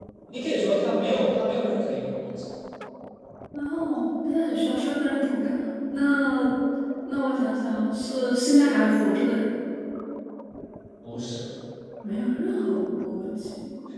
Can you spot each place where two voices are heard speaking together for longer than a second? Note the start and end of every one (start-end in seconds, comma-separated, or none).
none